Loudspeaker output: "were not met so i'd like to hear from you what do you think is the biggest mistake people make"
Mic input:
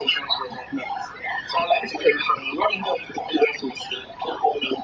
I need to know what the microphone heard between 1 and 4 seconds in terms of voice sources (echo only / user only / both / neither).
echo only